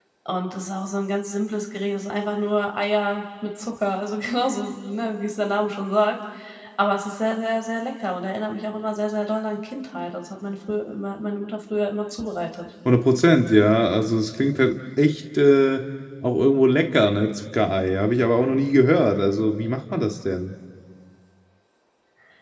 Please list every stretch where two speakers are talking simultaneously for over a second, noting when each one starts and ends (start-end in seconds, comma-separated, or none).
none